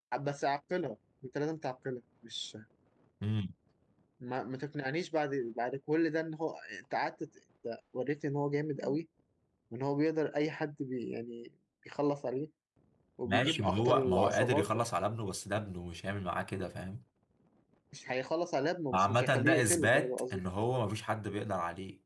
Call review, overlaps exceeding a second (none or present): present